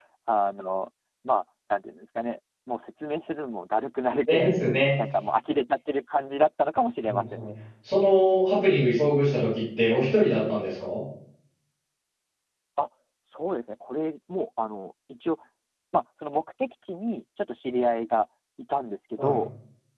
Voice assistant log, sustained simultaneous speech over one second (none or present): none